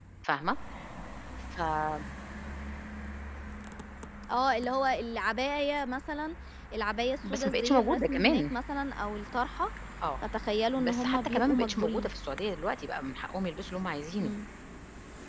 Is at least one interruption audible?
Yes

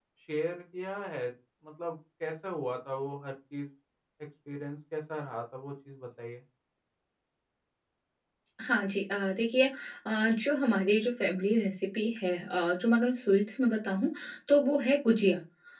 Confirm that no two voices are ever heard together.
Yes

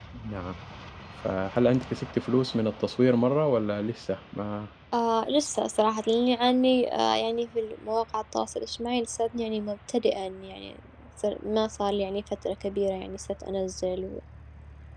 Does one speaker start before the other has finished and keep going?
No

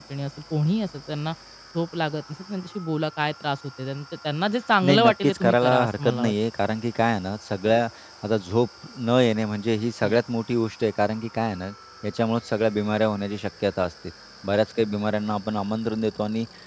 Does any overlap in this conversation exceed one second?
Yes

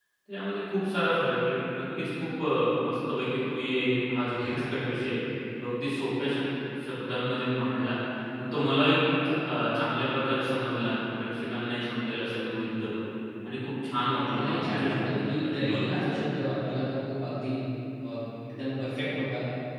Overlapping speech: Yes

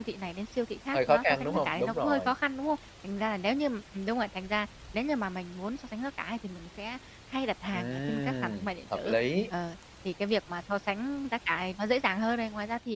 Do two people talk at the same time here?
Yes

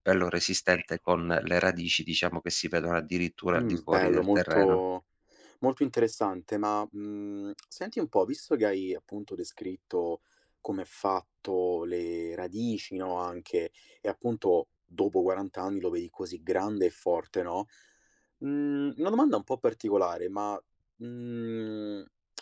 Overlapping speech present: Yes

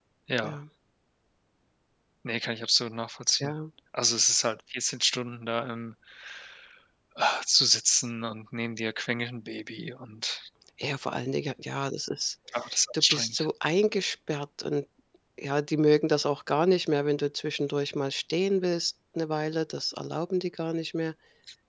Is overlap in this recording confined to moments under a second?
Yes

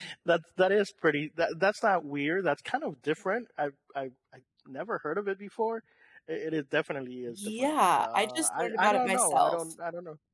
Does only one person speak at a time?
No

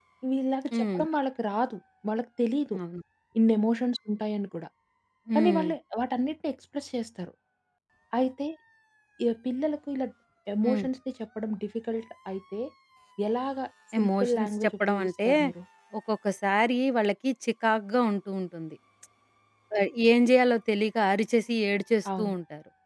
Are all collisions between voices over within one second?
No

